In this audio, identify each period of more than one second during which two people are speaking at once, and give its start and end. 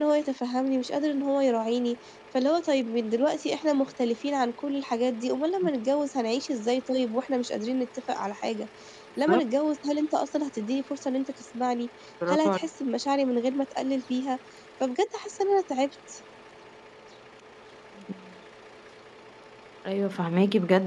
none

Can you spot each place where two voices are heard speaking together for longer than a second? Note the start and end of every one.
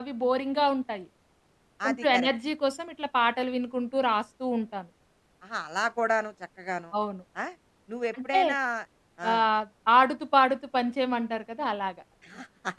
none

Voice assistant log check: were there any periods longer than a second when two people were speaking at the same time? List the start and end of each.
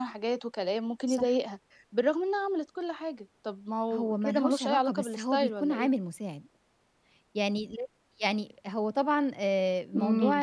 3.9-5.9

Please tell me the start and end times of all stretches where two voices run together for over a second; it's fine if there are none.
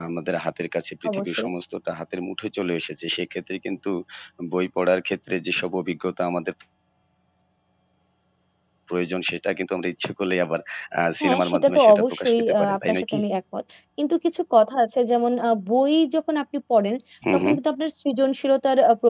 11.2-13.2

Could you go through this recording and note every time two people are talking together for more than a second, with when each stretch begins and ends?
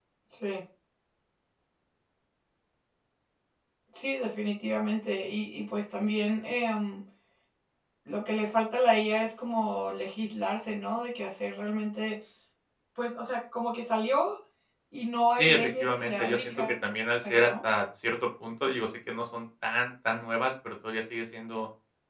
15.3-16.8

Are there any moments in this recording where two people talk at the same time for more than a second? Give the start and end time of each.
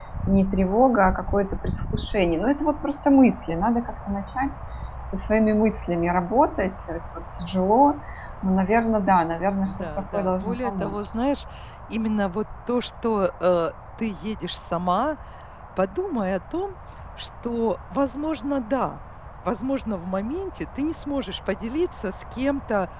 9.7-10.9

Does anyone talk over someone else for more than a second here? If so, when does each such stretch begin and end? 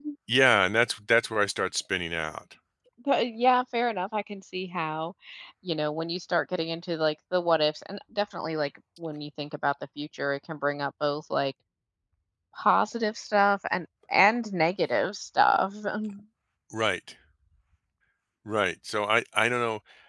none

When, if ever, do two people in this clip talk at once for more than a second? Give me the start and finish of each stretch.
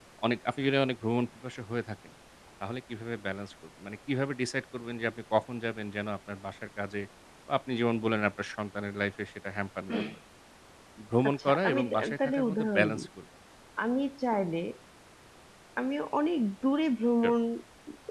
11.3-13.1

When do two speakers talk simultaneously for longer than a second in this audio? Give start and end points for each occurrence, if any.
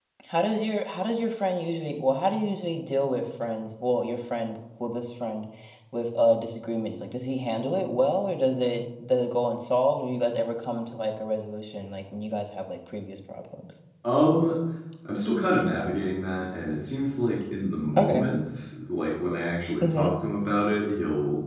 none

